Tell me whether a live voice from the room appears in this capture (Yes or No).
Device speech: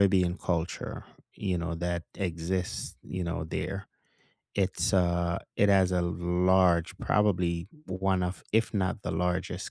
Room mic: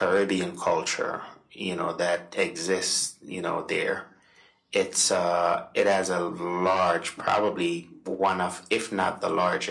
No